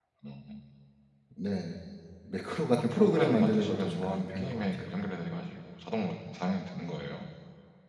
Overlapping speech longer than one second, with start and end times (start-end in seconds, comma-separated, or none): 2.8-4.9